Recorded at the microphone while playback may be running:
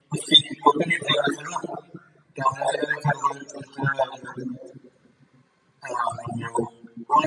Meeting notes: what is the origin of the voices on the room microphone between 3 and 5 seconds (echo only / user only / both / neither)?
echo only